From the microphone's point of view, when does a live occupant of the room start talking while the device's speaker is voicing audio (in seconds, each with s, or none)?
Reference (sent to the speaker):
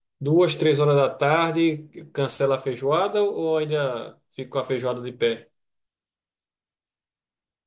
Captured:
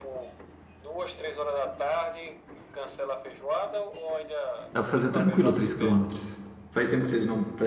4.7 s